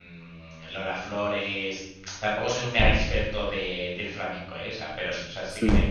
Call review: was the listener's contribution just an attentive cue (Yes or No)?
Yes